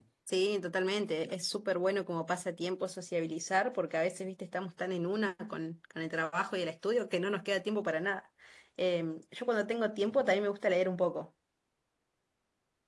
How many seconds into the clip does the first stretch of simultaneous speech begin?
none

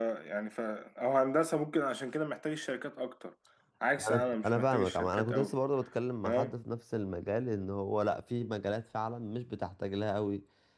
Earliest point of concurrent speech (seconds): 4.1 s

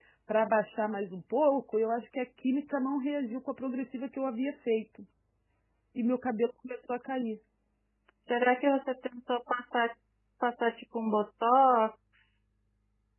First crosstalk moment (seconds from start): none

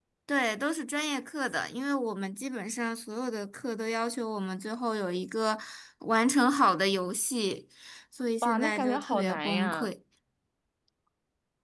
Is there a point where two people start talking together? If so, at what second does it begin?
8.4 s

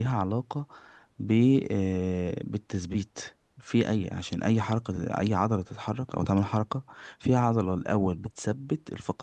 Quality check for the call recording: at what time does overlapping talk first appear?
none

